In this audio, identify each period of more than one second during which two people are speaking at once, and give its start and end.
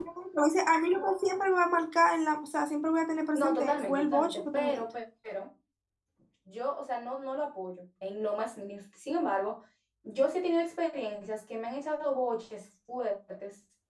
3.3-4.8

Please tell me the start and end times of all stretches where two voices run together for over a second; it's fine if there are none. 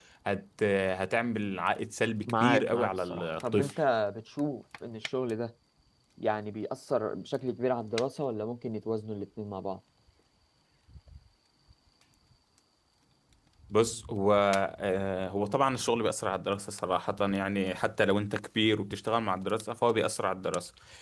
2.3-3.7

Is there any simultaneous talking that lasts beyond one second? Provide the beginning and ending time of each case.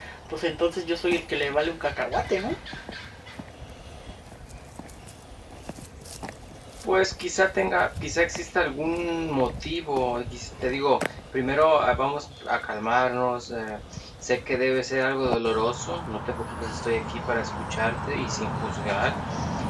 none

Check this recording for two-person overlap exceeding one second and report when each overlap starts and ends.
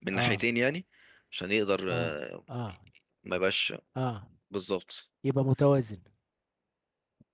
none

